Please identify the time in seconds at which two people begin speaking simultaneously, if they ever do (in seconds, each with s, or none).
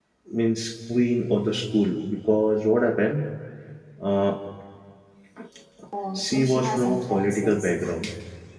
6.2 s